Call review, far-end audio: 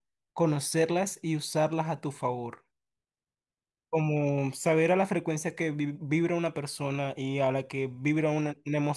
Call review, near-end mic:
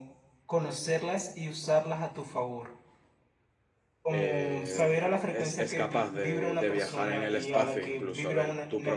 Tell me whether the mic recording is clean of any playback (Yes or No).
No